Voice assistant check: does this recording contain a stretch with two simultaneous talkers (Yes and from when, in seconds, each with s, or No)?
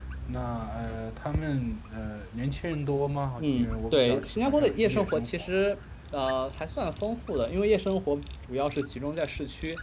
Yes, from 3.4 s